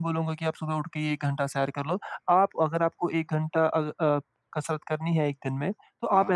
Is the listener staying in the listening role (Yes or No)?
Yes